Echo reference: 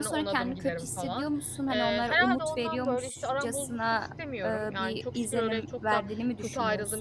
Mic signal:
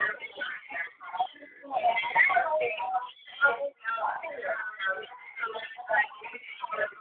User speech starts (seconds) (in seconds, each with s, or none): none